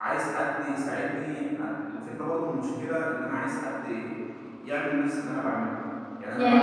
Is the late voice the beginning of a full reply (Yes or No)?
No